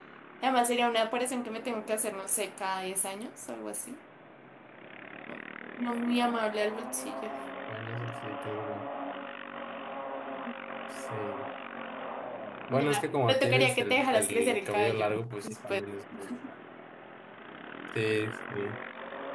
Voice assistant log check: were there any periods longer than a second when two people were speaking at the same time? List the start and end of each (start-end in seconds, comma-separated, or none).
12.7-15.0